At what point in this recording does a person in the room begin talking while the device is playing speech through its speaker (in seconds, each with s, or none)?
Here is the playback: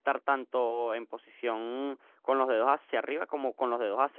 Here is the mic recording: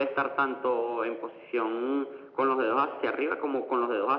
none